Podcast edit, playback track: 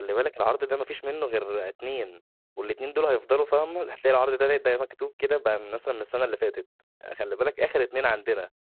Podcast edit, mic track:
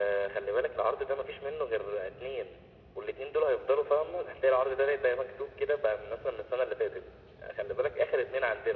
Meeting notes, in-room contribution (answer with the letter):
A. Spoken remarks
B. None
B